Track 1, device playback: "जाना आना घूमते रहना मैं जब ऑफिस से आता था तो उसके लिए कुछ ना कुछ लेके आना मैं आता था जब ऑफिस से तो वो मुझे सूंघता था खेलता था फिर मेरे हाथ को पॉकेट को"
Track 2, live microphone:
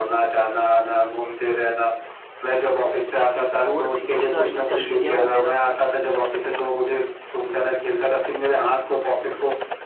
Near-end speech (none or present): present